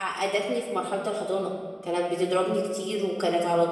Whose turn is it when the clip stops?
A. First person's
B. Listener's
A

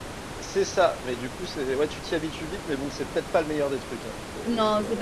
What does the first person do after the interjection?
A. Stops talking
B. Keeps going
A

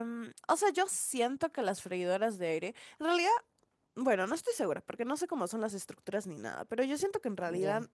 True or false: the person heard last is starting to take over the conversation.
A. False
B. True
A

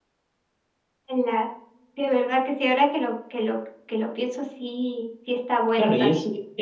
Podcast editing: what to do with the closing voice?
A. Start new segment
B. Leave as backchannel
A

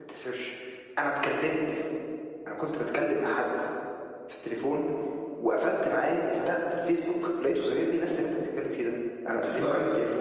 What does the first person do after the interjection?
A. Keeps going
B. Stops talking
B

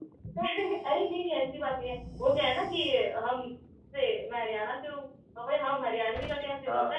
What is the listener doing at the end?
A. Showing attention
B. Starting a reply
A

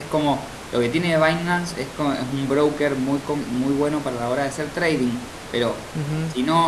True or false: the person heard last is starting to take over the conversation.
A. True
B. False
B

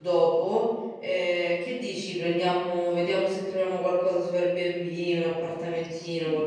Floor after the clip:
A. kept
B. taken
B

